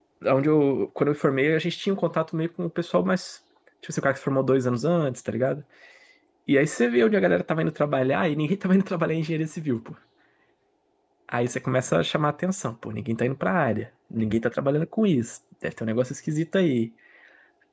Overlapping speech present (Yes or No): No